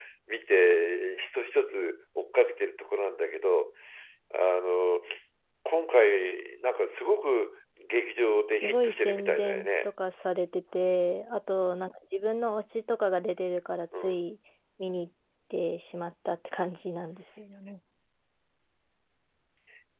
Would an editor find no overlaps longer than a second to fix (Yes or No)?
No